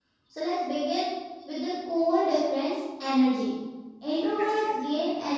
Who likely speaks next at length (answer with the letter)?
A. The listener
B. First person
B